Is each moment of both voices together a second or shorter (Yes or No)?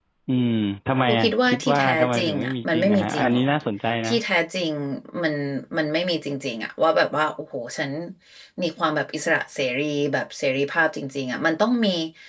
No